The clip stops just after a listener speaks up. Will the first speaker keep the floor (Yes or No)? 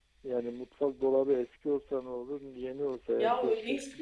No